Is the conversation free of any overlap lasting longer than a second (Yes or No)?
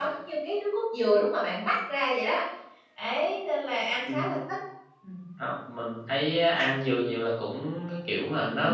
Yes